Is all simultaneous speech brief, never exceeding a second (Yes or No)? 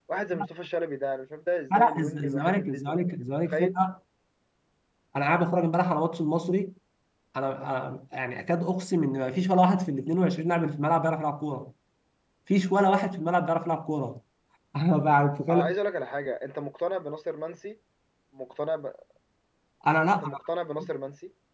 No